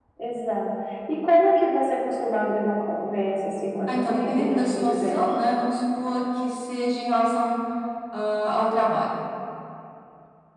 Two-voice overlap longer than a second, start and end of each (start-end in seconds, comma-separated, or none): 3.9-5.2